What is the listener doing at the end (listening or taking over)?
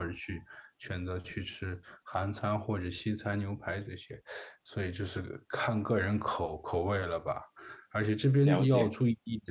listening